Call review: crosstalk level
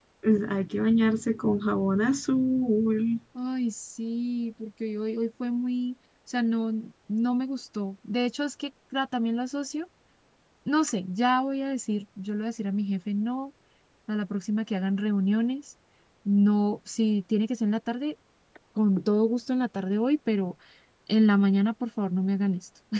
none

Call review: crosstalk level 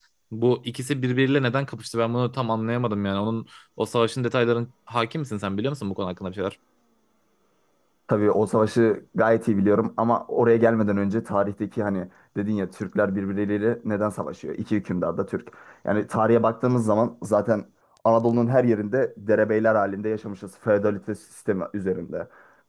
none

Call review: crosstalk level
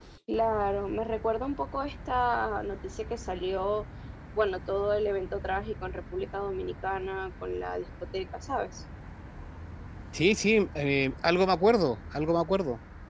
none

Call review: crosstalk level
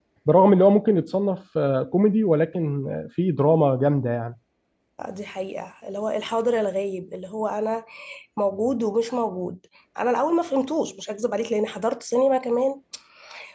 none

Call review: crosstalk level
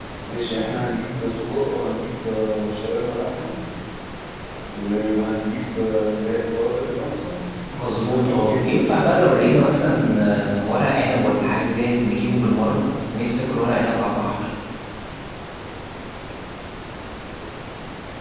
present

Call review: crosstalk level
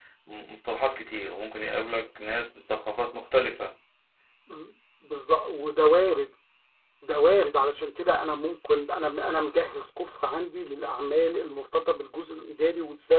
none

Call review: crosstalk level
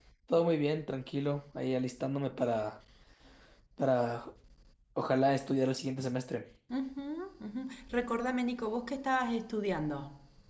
none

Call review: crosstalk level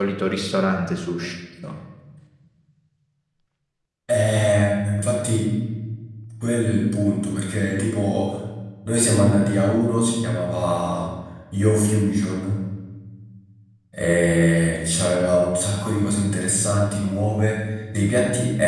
none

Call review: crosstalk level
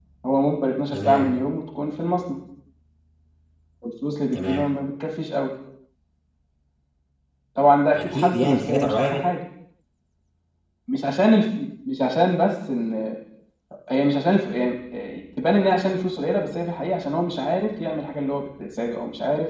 present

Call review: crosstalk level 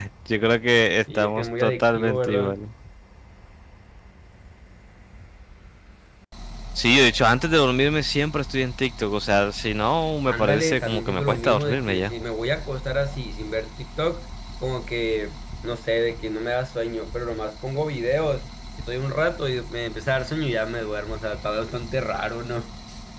present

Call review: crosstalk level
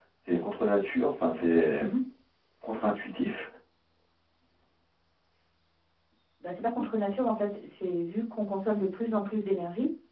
none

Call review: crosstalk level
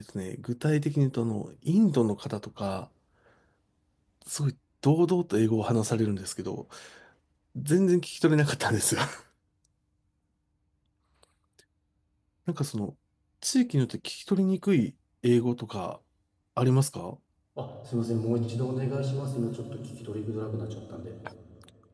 none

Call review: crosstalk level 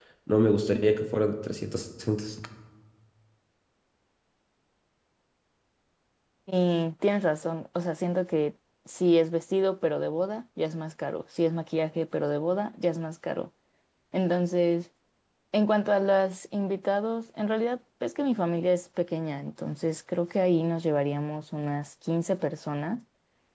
none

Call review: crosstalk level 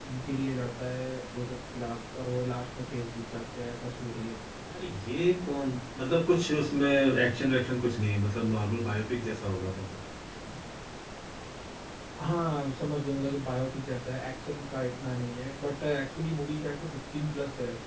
none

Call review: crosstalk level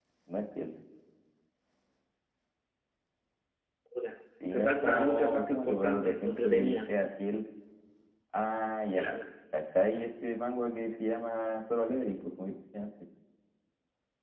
present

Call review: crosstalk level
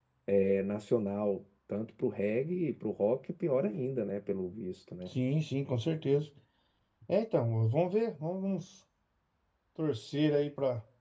none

